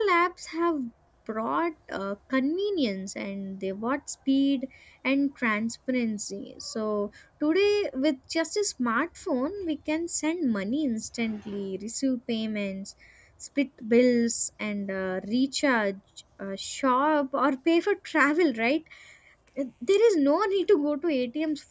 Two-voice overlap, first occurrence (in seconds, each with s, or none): none